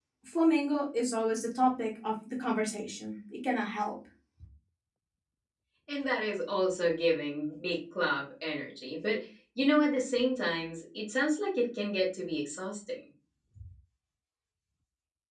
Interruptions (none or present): none